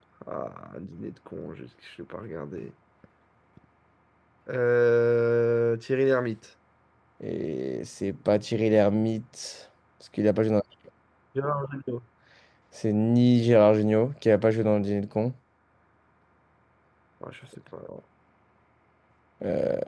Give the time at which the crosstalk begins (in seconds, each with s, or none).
none